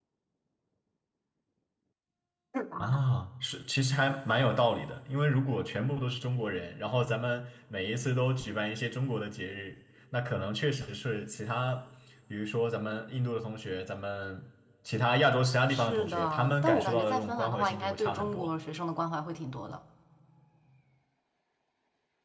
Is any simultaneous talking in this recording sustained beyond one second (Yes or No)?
Yes